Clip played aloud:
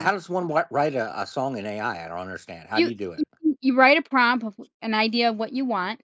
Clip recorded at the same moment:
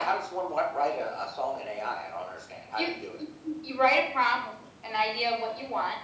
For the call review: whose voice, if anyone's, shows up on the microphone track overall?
echo only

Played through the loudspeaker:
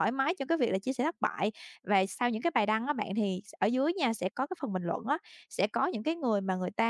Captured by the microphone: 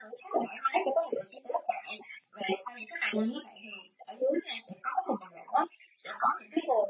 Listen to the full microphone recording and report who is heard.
echo only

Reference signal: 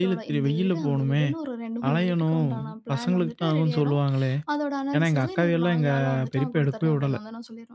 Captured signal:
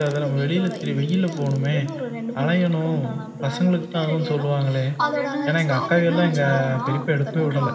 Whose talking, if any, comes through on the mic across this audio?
both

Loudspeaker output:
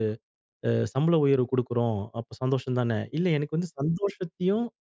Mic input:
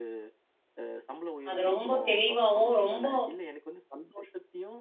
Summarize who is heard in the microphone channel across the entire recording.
both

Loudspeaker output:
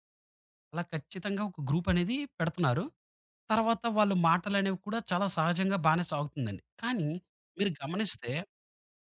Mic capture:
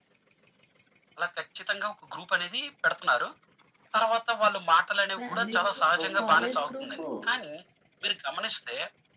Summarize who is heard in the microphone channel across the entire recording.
both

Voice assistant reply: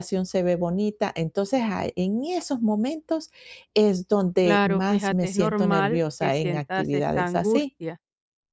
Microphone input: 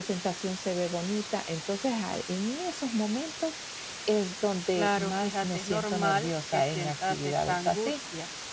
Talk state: echo only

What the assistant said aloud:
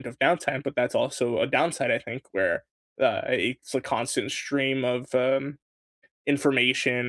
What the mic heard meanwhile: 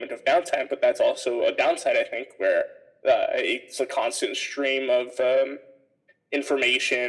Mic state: echo only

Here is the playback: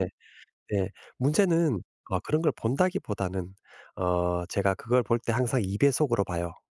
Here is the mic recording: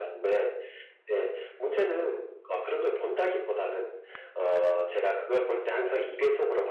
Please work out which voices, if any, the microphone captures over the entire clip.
echo only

